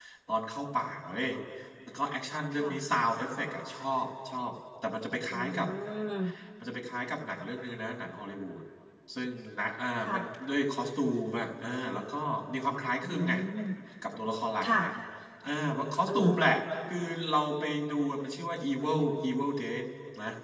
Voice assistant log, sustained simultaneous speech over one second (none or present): none